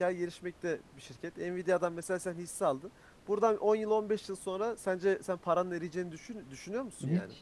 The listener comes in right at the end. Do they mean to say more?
Yes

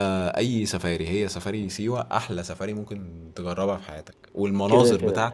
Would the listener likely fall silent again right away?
Yes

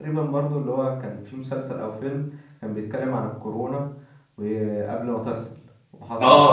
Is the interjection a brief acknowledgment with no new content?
No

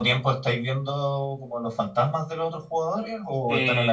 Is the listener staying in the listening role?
No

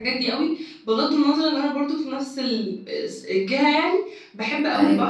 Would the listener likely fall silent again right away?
Yes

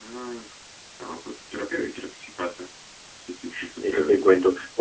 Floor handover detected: Yes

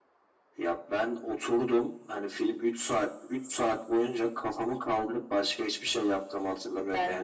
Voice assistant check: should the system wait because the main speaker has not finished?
Yes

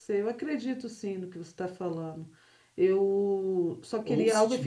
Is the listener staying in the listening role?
No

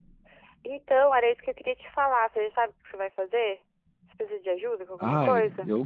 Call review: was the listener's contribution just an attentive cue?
No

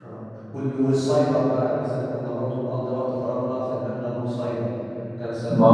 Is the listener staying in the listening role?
No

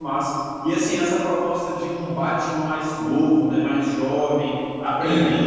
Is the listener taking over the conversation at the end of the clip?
No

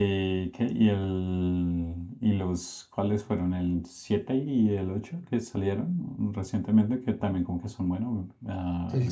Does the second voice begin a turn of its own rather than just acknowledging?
Yes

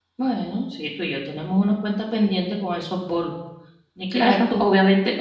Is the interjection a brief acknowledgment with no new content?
No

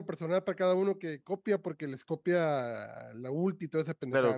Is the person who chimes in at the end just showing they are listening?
No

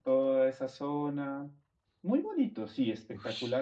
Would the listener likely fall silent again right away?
No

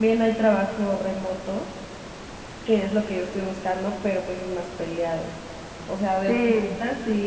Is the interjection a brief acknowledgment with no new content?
Yes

